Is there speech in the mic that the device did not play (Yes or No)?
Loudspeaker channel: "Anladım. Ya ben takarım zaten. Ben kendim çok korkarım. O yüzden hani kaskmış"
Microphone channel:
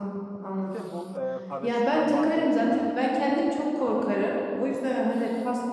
Yes